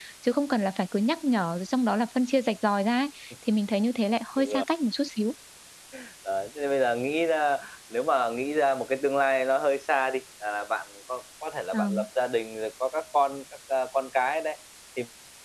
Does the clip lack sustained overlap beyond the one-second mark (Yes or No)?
Yes